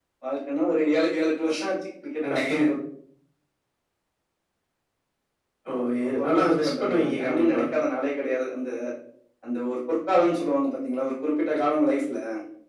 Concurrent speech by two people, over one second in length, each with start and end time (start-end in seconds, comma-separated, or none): 6.0-7.6